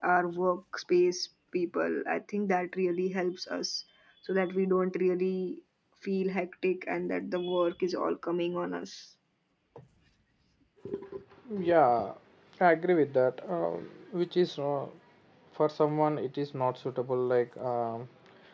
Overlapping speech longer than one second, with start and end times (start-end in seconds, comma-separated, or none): none